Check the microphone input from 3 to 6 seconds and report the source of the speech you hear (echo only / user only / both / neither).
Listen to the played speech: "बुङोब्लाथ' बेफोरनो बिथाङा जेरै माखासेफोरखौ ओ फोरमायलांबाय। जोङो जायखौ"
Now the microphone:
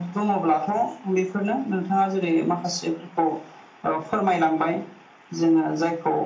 echo only